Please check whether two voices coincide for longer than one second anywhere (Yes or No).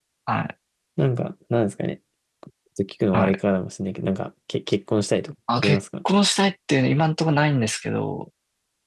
No